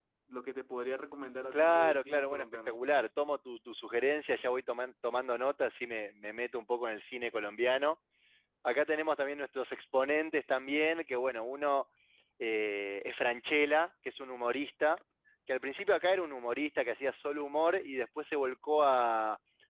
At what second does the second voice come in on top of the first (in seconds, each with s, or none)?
1.5 s